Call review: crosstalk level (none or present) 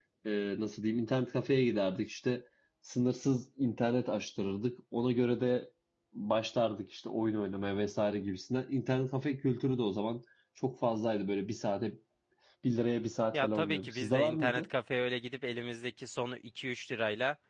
present